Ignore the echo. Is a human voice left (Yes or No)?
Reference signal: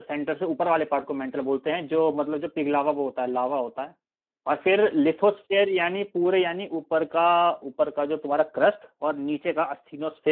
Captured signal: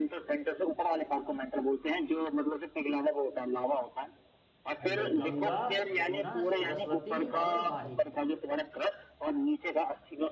Yes